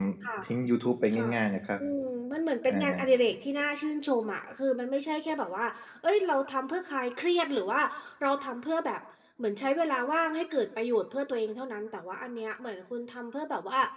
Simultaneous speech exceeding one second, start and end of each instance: none

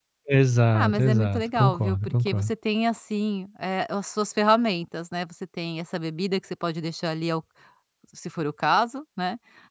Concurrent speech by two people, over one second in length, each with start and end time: 0.7-2.5

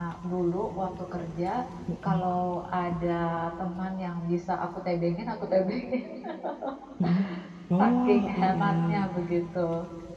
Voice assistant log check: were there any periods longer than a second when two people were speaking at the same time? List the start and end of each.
7.8-9.1

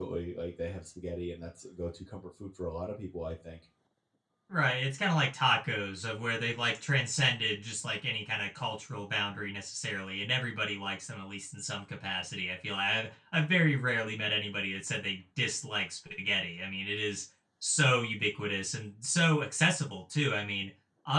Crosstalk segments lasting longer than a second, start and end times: none

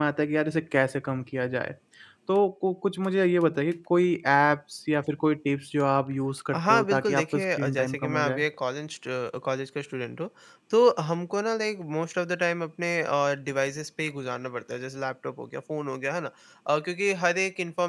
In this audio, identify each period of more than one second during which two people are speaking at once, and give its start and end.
6.6-8.4

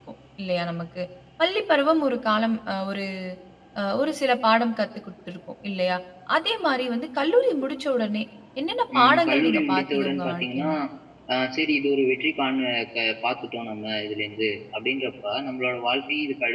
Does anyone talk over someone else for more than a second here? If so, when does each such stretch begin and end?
9.0-10.7

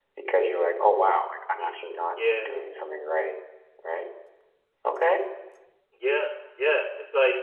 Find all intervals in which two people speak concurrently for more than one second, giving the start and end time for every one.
none

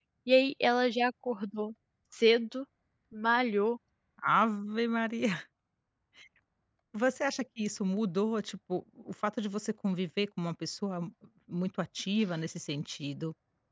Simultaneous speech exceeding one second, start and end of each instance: none

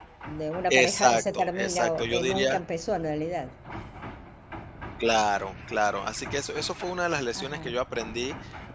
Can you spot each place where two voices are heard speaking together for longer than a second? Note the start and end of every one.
0.7-2.6

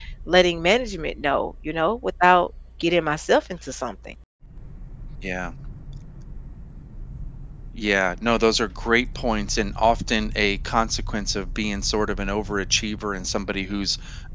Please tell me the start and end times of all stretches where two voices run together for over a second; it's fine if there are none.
none

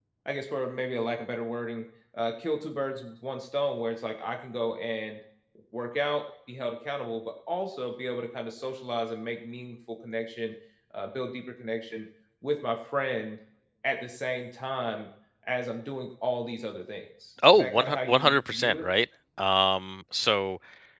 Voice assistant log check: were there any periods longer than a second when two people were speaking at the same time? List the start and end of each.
17.5-18.8

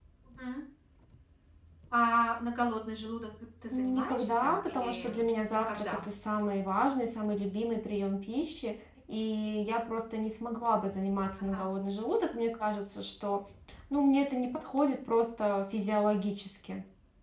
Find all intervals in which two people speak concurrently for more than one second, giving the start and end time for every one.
3.7-5.1

